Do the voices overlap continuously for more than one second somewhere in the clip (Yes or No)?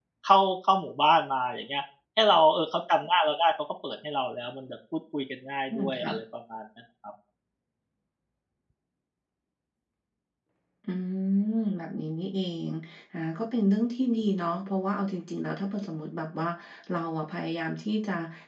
No